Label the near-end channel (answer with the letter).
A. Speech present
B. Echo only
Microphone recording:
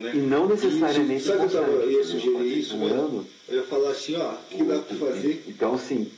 A